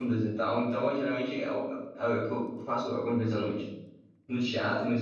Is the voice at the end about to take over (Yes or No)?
No